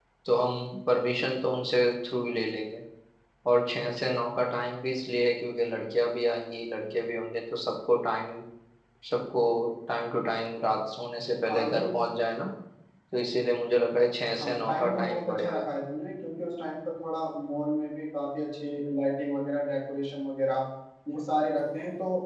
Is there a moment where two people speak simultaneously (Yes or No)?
Yes